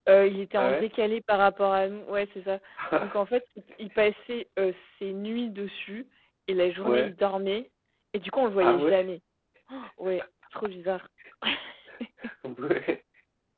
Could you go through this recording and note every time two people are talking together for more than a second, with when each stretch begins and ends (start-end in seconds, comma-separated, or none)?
none